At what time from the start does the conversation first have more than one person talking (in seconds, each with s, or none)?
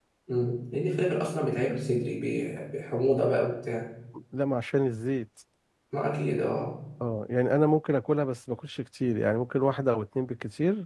none